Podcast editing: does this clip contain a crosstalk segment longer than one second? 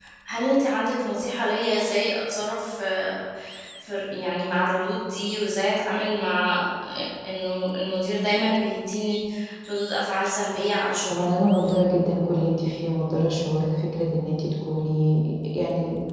No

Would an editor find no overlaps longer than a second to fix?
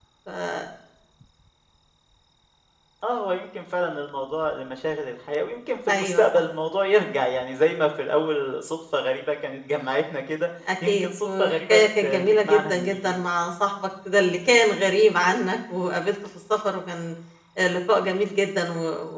No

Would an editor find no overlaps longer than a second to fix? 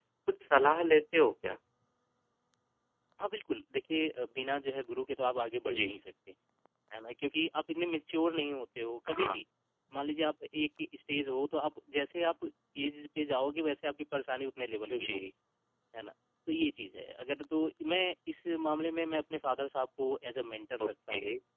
Yes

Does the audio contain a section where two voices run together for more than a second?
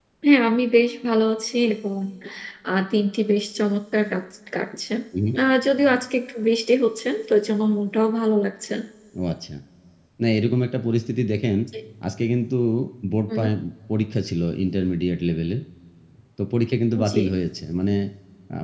No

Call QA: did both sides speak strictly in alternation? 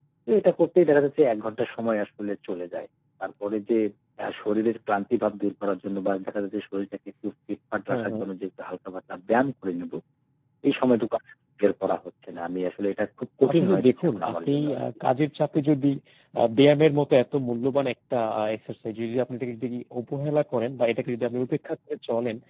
No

